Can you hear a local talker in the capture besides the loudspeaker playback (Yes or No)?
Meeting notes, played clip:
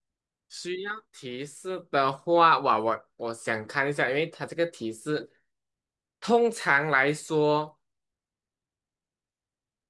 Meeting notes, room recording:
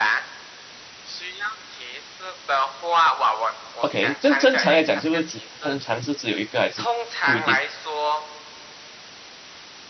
Yes